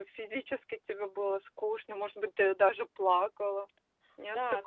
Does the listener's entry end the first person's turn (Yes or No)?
Yes